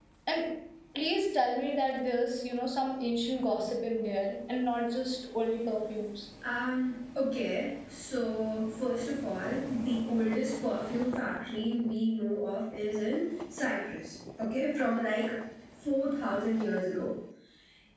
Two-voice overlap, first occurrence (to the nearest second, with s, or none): none